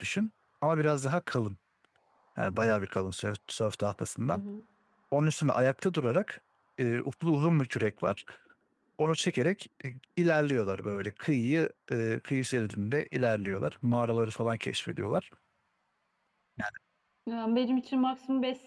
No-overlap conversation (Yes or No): Yes